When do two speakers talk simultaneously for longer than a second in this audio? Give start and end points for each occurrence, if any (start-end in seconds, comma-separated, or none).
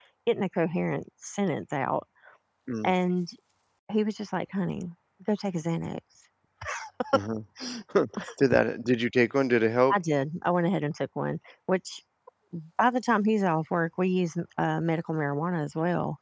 none